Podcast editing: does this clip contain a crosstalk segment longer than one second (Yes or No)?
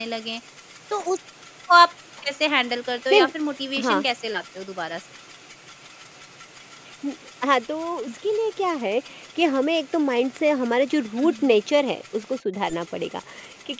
No